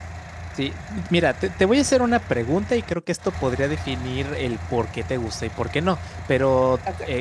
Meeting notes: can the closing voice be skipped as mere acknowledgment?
Yes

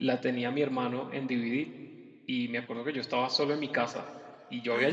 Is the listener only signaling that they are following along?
Yes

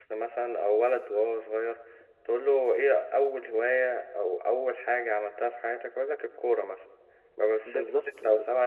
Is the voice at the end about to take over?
No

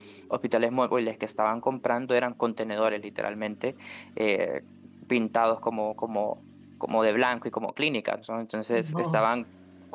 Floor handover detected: No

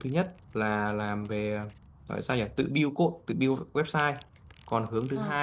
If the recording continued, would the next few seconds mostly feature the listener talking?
No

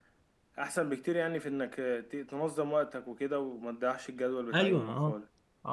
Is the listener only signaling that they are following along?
No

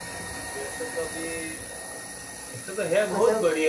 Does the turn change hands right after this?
No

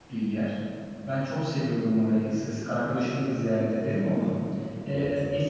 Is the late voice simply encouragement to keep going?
Yes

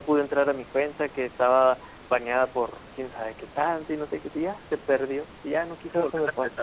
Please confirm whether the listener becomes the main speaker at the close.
Yes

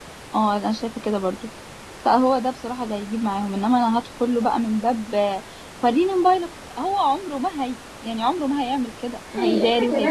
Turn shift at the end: Yes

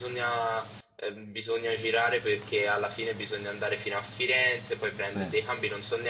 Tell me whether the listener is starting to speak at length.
No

